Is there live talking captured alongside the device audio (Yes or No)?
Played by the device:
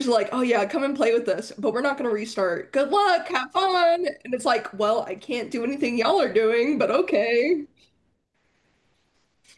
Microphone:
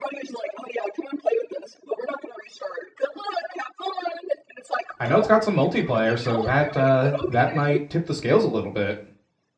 Yes